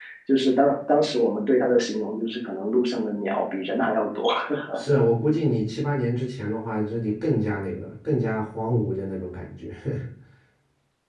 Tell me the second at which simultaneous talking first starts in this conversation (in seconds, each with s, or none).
none